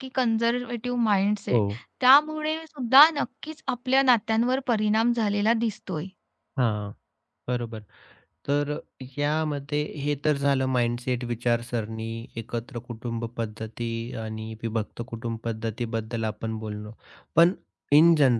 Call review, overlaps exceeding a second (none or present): none